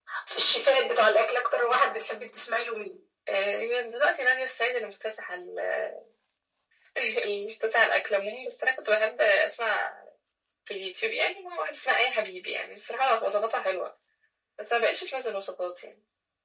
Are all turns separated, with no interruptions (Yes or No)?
Yes